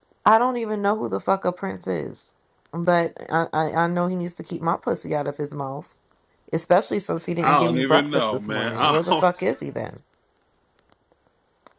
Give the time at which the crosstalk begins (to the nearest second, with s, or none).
7 s